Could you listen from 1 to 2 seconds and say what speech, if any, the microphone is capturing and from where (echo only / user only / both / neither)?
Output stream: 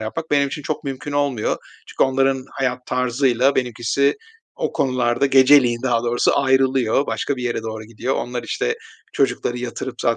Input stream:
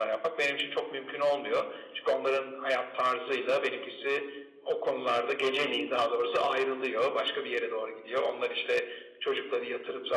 echo only